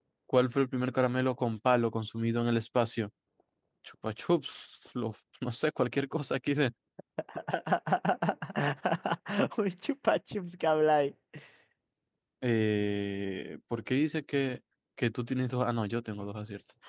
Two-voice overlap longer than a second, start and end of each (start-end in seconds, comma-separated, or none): none